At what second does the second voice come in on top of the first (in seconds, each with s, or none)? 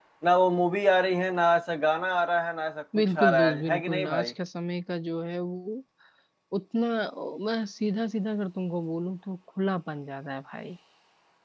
2.9 s